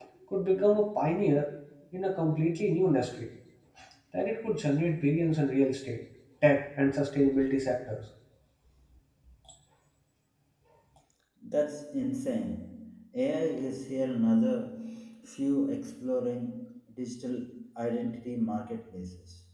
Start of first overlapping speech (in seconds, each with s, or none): none